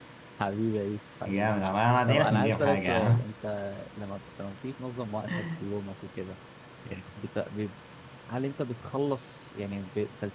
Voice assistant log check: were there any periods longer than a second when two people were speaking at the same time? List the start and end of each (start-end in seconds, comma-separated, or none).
2.1-3.3